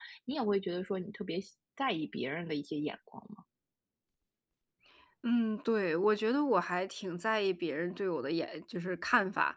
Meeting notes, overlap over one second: none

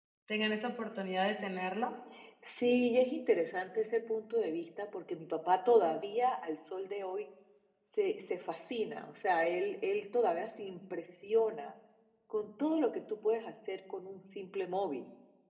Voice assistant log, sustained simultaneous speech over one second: none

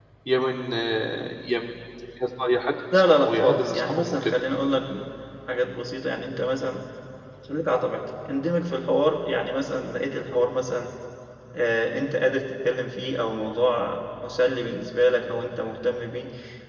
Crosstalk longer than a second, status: present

